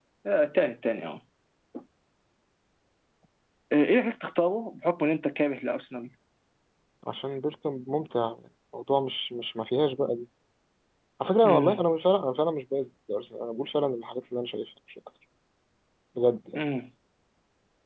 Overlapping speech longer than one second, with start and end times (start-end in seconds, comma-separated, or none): none